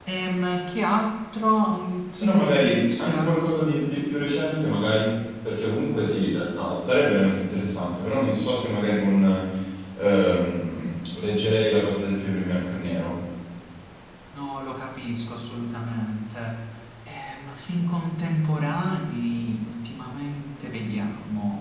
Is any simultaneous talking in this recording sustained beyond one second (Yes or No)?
Yes